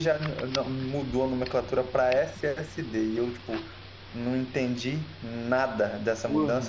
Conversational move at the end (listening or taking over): listening